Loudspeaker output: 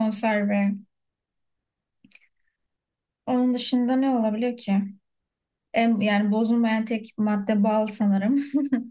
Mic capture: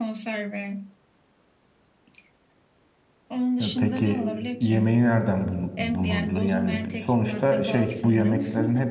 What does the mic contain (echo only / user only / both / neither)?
both